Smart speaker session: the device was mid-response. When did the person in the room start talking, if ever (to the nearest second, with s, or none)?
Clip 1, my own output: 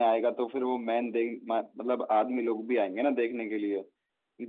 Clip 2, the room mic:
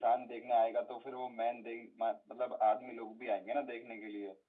none